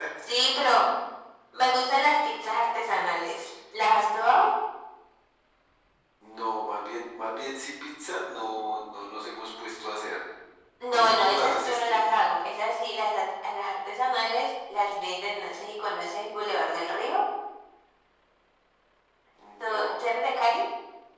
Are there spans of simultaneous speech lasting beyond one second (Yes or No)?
Yes